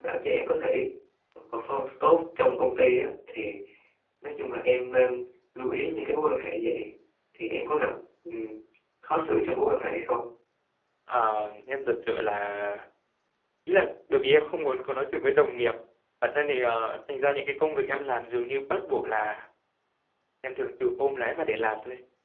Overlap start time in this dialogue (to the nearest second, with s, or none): none